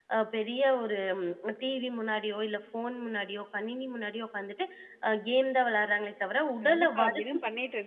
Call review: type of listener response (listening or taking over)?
taking over